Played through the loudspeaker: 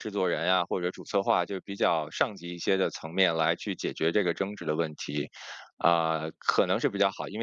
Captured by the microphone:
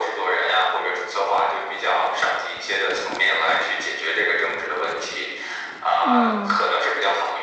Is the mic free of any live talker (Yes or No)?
No